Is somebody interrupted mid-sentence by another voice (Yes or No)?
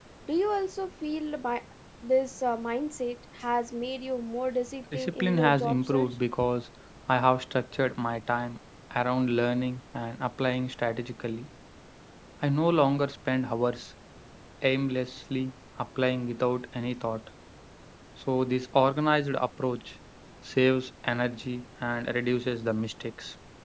Yes